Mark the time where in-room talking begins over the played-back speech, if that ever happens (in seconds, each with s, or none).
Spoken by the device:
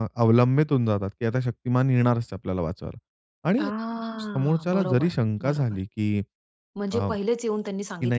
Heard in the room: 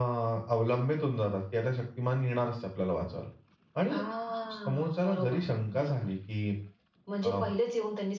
none